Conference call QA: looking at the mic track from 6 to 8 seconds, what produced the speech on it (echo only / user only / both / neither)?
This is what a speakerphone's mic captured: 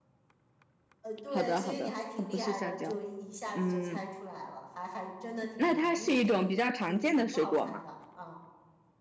both